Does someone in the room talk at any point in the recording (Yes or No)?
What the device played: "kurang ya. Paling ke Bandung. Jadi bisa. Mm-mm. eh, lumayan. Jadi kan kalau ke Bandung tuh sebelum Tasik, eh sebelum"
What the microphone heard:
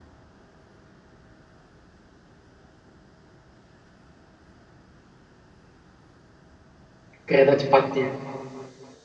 Yes